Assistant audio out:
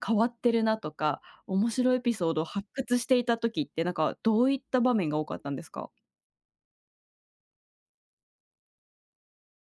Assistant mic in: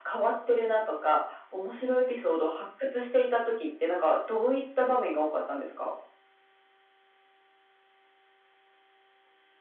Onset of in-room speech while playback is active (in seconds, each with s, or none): none